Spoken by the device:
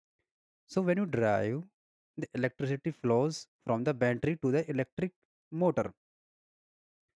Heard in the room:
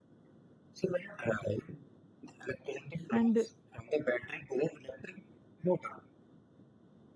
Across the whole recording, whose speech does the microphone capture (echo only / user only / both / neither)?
both